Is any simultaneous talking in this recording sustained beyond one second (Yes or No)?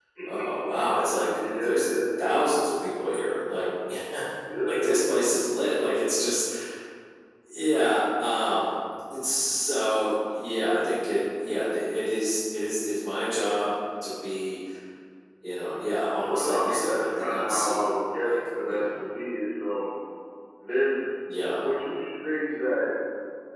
Yes